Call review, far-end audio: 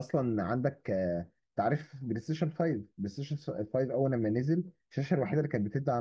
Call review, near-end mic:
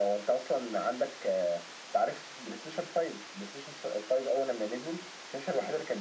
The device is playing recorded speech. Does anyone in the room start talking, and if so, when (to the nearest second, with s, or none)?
none